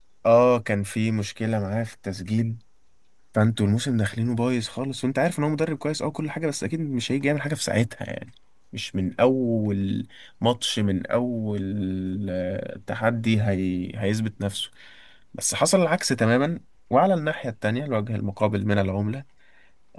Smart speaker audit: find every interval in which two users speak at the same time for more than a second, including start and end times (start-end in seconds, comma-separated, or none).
none